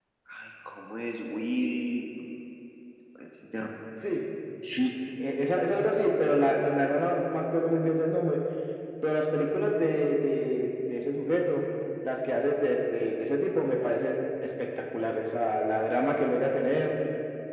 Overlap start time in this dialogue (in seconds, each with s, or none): none